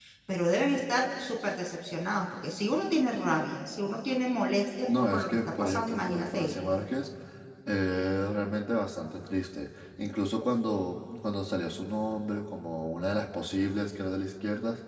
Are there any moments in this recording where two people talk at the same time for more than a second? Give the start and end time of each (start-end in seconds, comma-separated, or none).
5.1-6.6